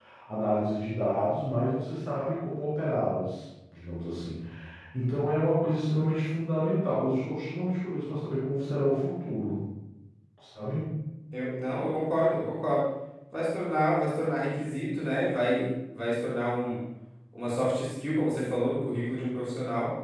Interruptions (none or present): none